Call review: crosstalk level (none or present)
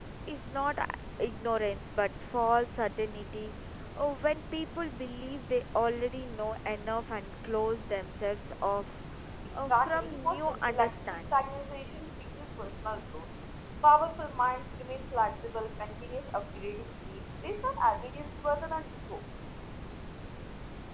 present